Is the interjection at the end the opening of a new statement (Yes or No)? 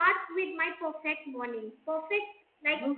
No